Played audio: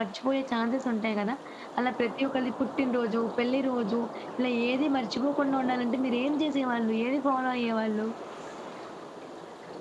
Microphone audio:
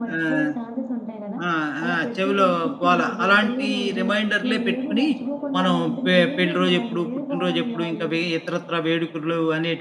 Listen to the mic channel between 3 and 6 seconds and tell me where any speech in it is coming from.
both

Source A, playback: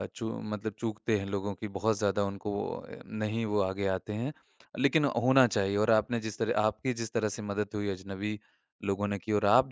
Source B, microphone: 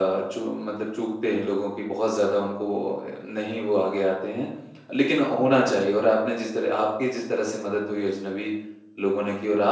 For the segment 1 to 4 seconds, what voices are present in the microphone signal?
echo only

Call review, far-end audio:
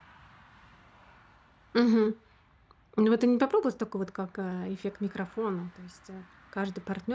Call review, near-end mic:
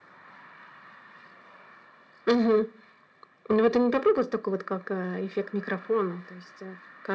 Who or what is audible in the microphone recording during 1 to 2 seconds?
neither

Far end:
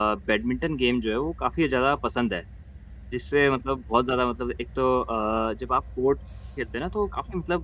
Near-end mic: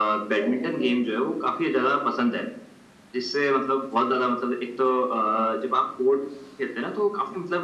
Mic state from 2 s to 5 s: echo only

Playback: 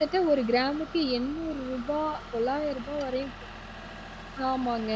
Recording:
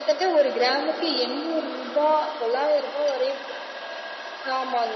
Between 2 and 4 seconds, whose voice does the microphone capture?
echo only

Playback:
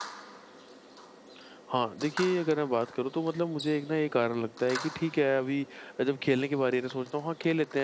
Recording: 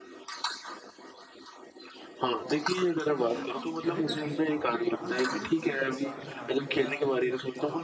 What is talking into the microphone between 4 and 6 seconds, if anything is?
both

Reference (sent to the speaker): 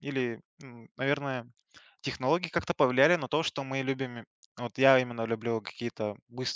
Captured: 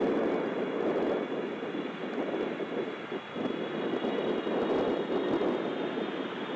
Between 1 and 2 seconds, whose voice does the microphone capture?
neither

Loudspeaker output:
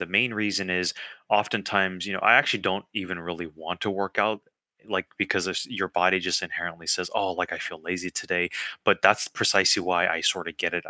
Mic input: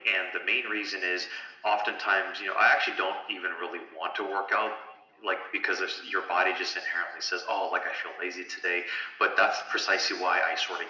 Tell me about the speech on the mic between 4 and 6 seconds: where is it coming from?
echo only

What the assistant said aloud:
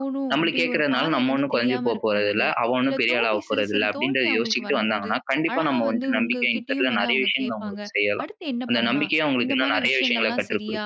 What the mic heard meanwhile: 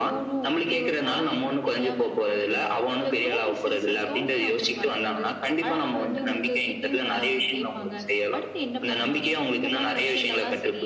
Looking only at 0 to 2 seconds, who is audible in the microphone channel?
echo only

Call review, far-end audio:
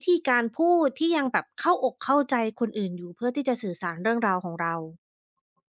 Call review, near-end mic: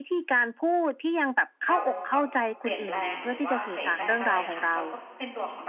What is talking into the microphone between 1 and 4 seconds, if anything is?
both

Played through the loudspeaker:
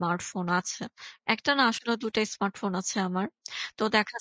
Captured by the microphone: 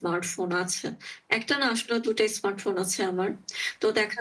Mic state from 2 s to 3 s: echo only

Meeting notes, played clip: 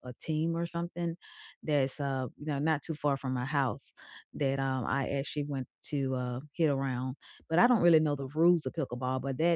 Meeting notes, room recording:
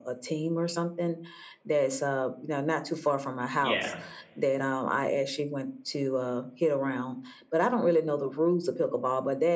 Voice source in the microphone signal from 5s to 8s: echo only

